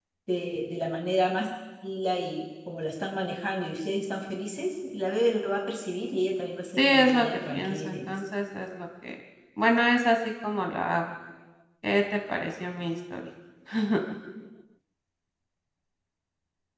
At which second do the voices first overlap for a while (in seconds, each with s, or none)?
6.8 s